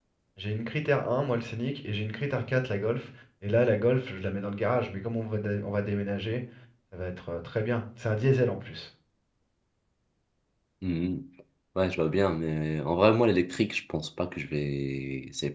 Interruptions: none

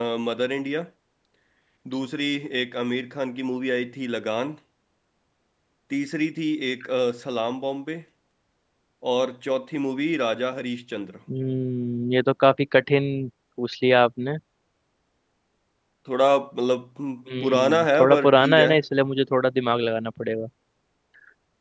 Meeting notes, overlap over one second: present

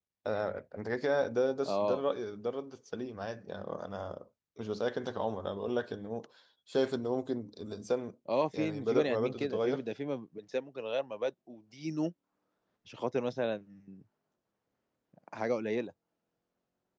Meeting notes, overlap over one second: present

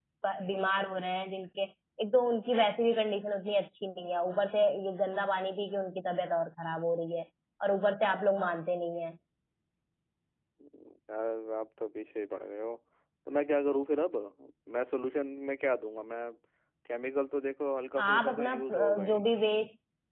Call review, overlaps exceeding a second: present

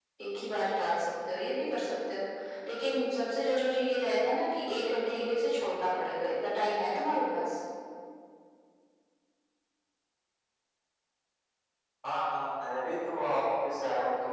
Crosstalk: none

